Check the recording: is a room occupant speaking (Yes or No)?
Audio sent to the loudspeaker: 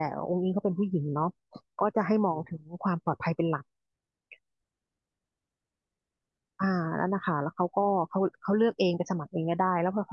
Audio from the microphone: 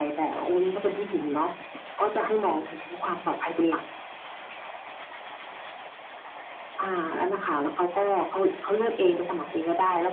No